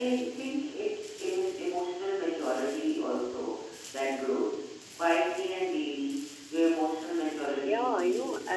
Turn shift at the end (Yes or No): Yes